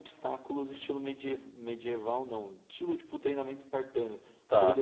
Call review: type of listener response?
listening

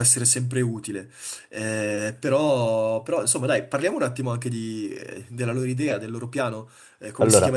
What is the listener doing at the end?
listening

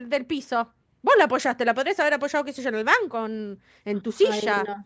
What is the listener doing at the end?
taking over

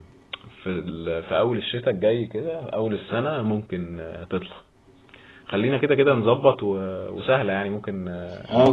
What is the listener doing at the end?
taking over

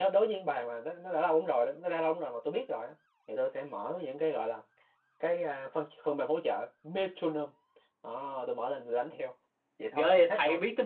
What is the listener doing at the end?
taking over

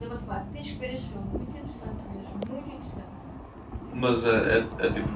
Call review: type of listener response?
taking over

